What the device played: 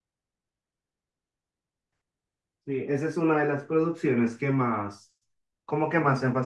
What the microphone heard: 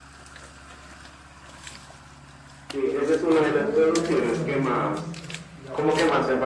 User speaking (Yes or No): Yes